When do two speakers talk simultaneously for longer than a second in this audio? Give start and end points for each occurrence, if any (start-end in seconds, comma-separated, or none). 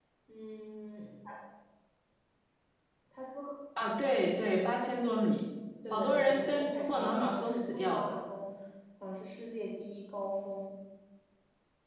5.9-8.1